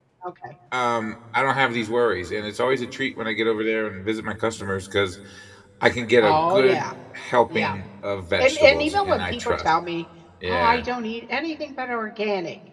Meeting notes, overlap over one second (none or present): present